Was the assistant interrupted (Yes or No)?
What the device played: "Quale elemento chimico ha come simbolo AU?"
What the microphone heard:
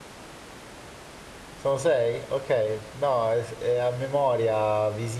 Yes